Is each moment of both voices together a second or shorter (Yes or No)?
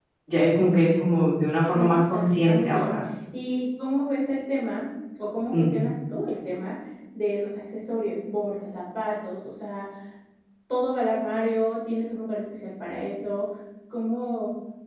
No